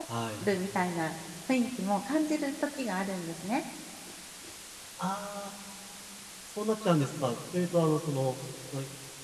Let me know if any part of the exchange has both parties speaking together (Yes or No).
No